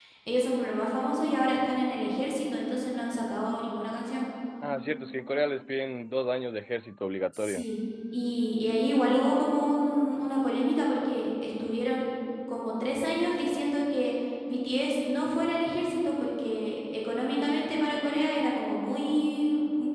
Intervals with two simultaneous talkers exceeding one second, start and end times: none

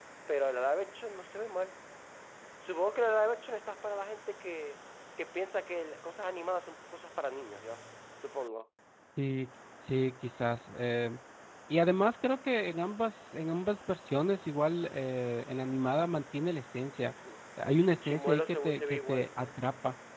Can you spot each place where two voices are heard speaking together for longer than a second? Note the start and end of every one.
18.0-19.3

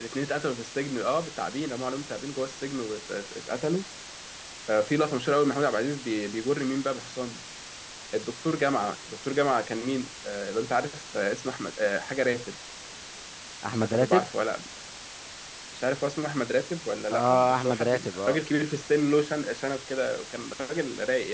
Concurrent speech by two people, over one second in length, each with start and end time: 17.1-18.4

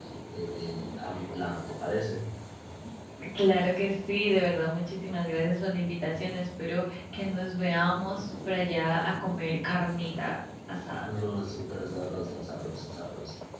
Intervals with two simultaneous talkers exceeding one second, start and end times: none

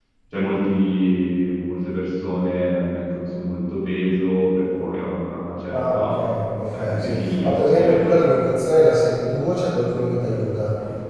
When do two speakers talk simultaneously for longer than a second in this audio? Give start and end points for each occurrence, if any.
6.7-8.3

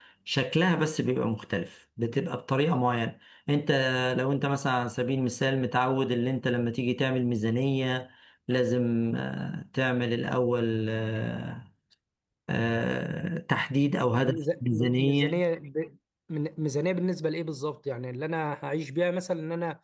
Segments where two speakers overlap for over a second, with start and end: 14.1-15.4

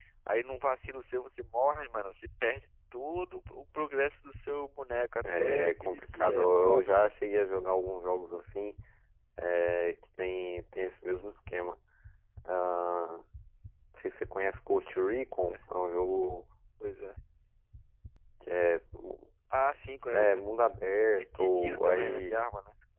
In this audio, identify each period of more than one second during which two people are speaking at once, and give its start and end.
5.4-7.1, 20.9-22.4

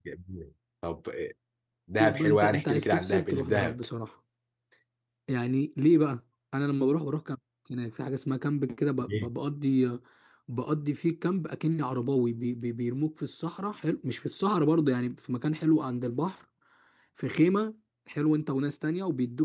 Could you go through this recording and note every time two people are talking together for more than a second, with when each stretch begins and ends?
2.0-3.8

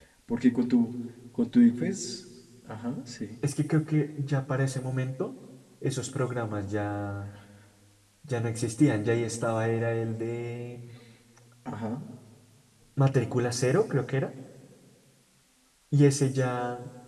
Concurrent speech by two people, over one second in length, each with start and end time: none

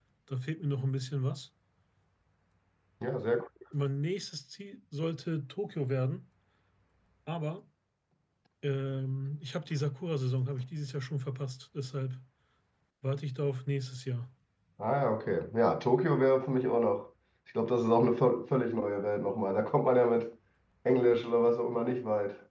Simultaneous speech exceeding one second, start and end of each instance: none

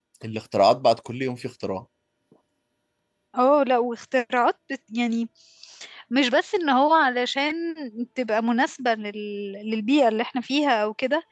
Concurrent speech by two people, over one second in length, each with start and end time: none

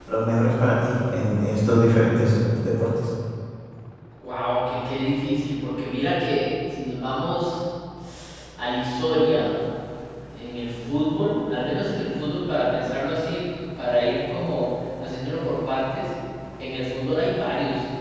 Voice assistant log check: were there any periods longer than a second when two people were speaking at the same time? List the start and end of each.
none

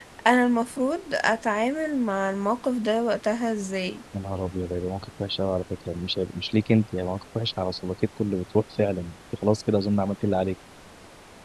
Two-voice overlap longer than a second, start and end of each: none

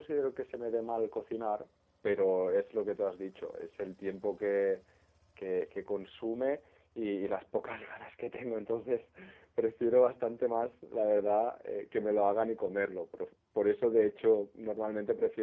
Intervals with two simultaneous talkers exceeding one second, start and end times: none

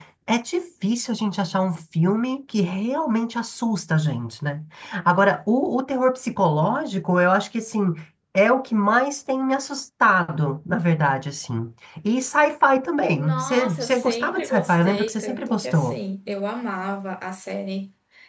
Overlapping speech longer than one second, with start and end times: 13.1-16.0

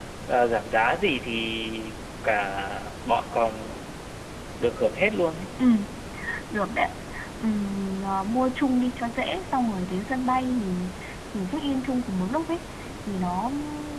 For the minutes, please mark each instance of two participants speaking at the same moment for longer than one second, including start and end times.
none

